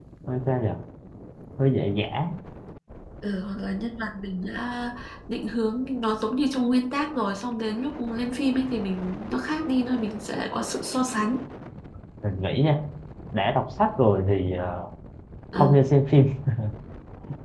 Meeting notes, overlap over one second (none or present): none